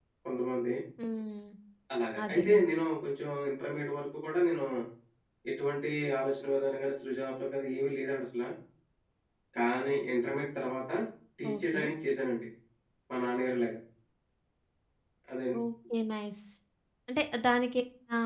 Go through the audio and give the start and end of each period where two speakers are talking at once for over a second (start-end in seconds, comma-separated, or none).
none